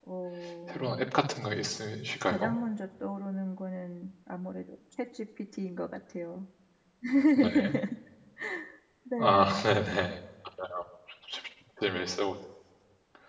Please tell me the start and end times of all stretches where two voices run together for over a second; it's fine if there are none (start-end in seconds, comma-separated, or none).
none